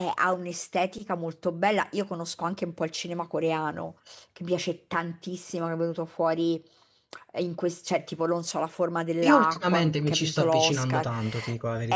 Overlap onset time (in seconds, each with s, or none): 9.2 s